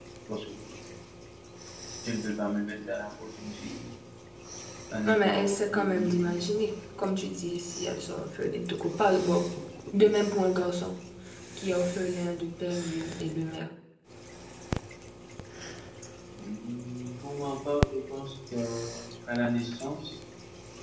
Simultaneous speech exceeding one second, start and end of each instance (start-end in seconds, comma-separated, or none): 5.0-6.4